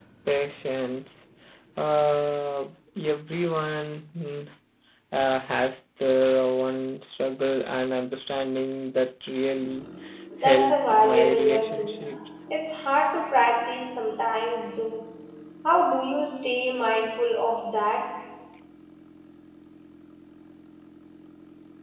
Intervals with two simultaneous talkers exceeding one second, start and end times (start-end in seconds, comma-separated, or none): 10.4-12.0